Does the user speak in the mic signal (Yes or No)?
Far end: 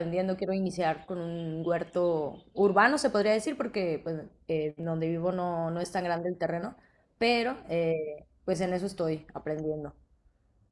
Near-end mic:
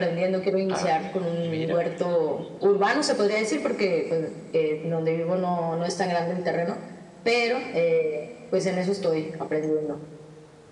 Yes